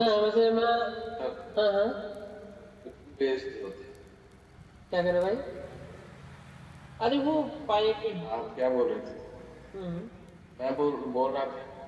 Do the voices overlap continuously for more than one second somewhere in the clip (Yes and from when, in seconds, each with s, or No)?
No